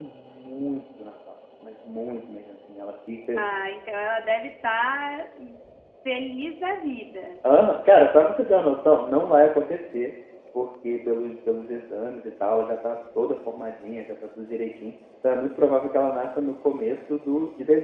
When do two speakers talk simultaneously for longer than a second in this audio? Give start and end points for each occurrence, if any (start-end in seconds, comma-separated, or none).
none